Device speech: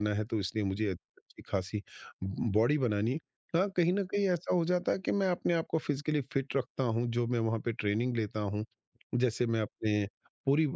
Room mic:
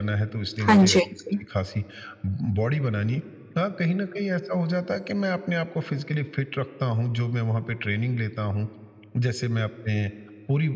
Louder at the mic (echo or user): user